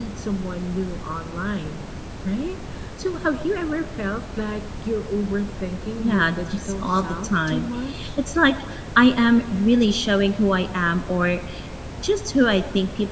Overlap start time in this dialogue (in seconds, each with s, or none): 6.0 s